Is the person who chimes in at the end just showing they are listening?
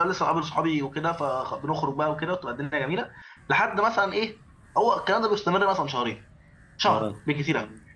Yes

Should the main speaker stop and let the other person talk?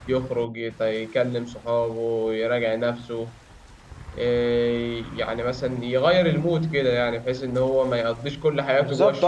Yes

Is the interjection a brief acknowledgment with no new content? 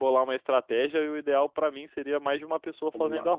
No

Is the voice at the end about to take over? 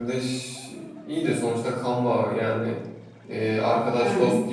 No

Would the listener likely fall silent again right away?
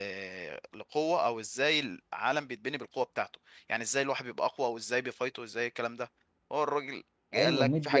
No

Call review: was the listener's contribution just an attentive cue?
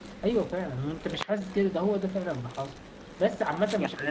No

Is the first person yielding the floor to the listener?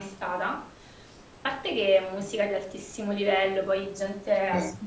No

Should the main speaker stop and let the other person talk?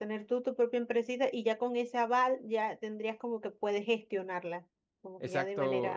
Yes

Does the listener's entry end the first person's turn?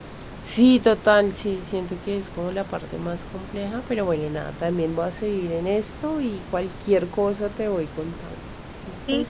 Yes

